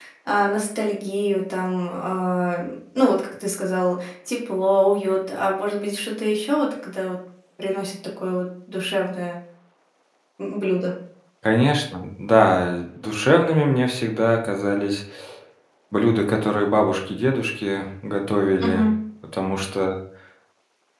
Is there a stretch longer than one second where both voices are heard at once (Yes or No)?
No